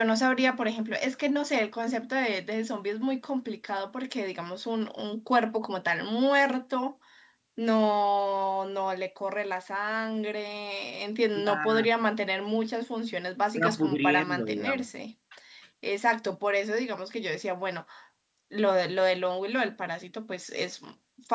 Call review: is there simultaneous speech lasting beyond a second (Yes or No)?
Yes